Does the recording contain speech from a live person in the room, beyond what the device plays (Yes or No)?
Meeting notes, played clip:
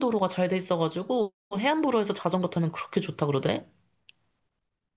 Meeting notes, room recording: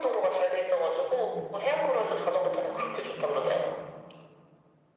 Yes